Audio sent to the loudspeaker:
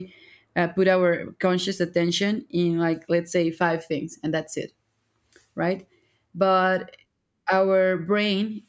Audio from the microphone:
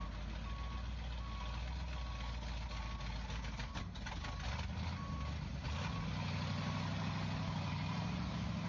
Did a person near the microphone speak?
No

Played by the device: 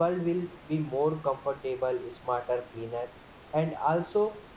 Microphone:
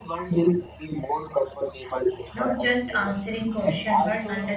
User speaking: Yes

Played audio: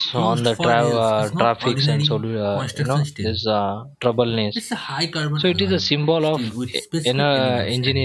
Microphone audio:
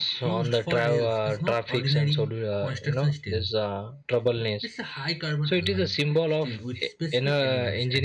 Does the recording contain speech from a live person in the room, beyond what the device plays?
No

